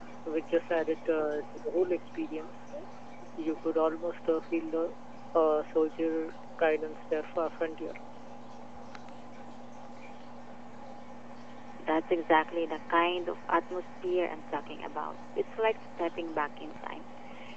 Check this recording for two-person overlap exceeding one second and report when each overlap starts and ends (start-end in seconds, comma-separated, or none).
none